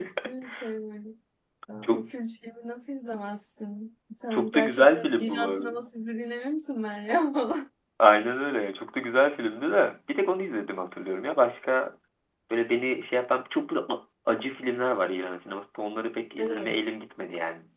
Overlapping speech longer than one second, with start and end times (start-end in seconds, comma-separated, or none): 4.3-5.7